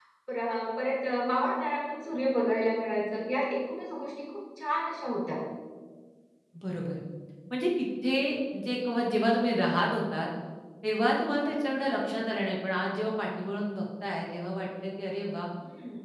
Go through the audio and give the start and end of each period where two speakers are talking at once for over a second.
none

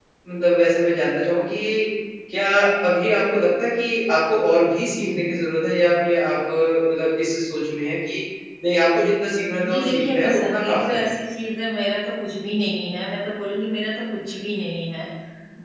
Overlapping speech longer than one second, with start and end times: 9.7-11.1

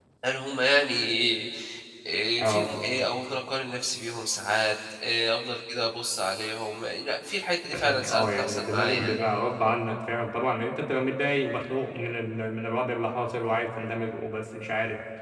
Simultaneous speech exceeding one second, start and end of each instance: 7.7-9.2

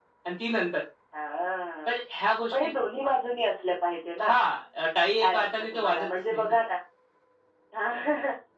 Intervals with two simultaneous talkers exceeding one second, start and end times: 5.2-6.5

